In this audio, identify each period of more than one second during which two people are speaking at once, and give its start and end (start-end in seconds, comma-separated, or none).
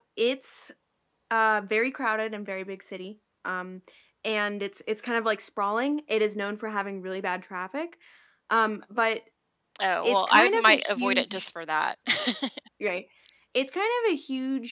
10.0-11.4